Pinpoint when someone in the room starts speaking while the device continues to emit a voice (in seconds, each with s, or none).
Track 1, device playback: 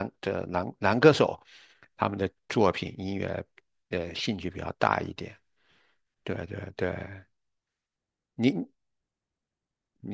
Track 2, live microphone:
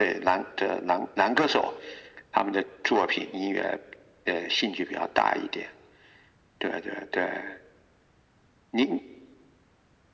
none